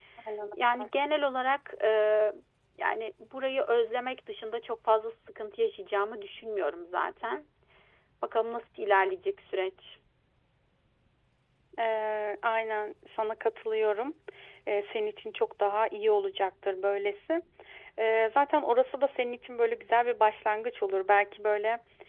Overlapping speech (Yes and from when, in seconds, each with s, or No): No